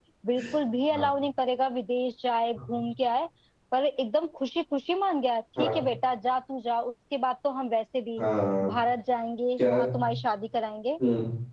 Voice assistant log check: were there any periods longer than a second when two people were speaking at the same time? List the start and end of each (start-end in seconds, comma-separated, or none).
none